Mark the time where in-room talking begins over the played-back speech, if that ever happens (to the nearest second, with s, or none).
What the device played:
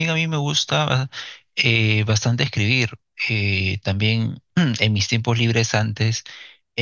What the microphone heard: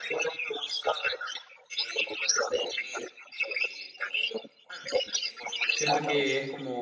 6 s